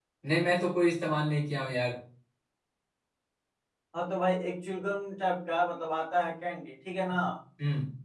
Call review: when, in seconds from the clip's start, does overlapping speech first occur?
none

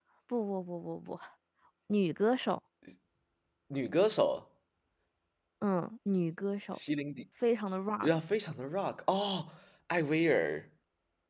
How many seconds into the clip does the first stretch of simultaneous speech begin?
none

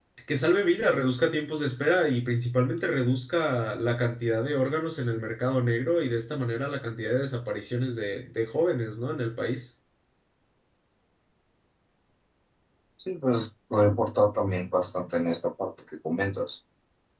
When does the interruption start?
none

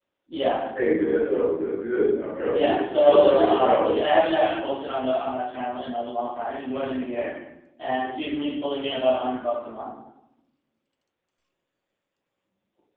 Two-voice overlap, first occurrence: 2.5 s

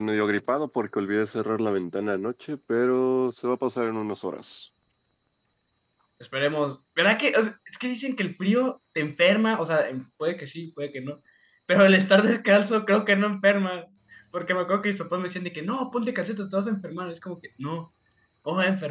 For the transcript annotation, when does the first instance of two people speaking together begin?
none

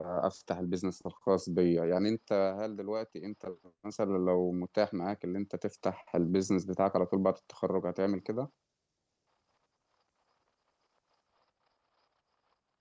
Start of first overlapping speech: none

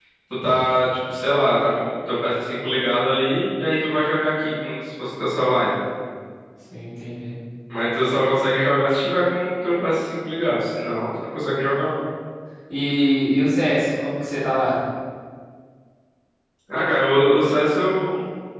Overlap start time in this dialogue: none

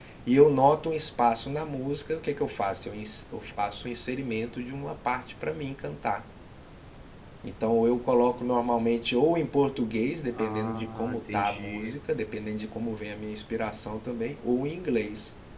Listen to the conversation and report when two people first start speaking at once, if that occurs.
10.3 s

